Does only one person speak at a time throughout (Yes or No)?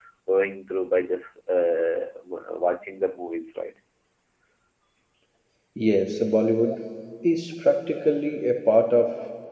Yes